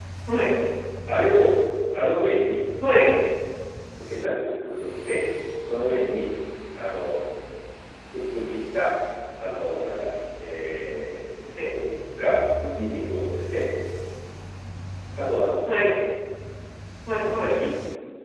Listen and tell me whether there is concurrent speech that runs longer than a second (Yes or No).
No